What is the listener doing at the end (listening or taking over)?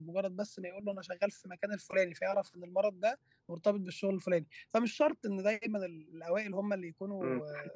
taking over